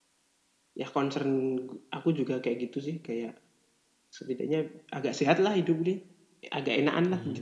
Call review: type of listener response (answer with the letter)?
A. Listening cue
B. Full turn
B